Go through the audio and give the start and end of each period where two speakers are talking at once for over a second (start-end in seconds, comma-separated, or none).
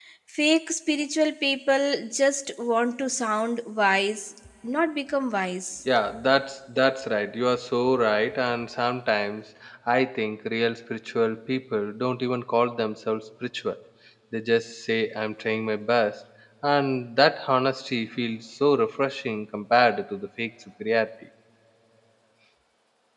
none